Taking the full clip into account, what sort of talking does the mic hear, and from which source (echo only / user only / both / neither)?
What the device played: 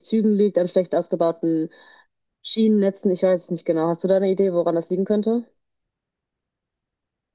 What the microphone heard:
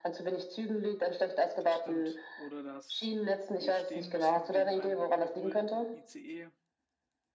both